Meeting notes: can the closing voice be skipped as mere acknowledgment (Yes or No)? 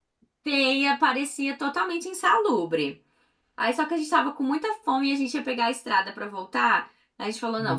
Yes